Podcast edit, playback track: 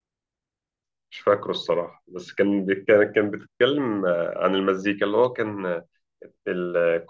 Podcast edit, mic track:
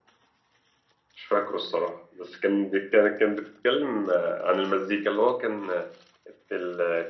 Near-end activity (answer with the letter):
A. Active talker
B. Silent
B